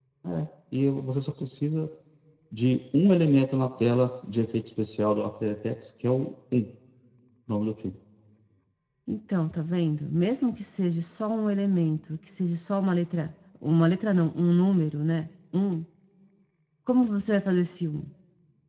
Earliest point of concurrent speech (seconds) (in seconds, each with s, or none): none